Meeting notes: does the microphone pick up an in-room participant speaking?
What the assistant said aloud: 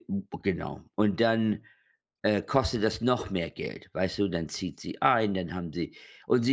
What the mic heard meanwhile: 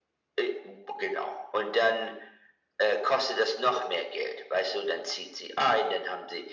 No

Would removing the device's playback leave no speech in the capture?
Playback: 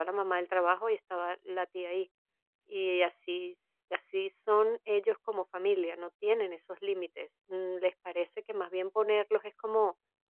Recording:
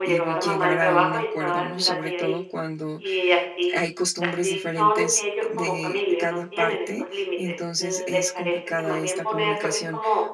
No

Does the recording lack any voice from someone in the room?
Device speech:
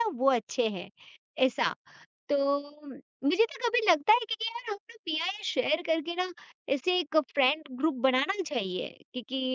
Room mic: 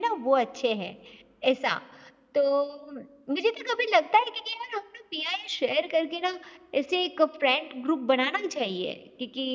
Yes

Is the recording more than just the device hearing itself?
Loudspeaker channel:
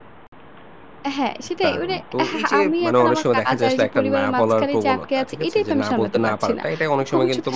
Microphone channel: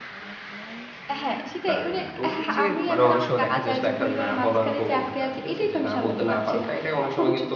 No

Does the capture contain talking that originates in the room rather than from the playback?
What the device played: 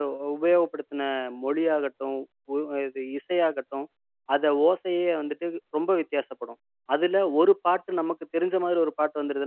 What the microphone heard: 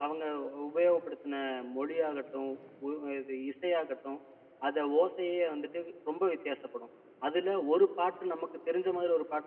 No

